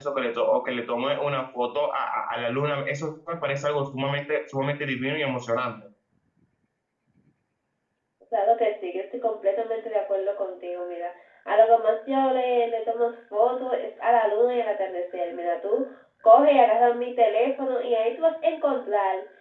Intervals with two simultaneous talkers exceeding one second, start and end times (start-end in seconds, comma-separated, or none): none